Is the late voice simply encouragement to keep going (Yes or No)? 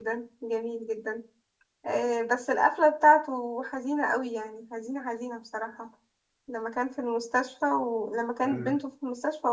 Yes